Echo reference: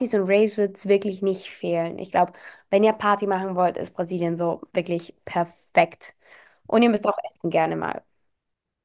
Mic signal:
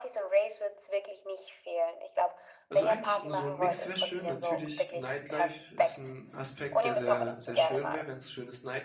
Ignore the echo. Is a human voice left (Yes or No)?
Yes